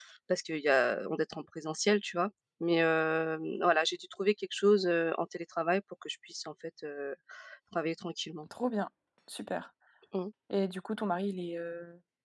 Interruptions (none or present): none